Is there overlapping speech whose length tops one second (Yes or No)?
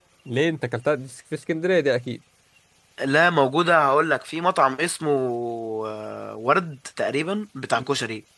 No